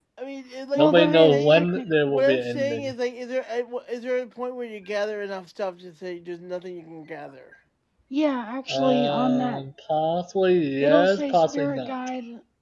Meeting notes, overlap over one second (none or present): present